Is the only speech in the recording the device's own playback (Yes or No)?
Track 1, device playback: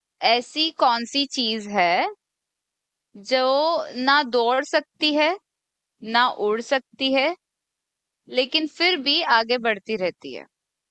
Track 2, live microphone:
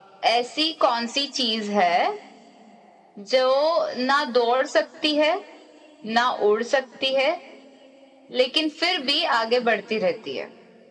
Yes